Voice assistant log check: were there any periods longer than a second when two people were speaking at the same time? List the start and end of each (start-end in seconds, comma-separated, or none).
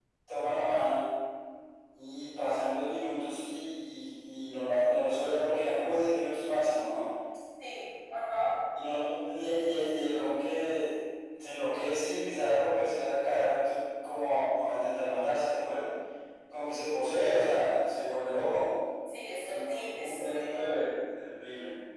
19.5-20.7